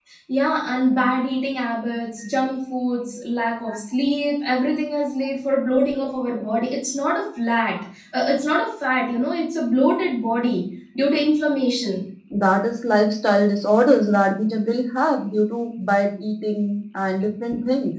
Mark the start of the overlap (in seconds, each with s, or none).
none